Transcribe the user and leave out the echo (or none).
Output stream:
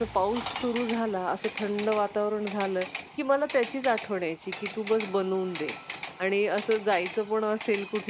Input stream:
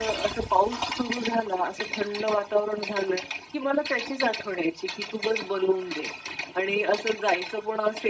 none